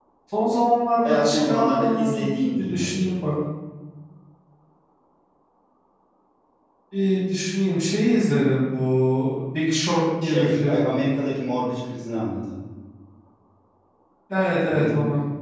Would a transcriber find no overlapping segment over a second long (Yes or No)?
No